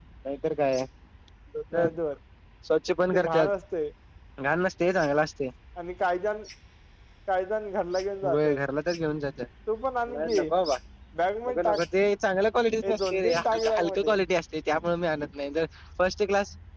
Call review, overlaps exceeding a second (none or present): present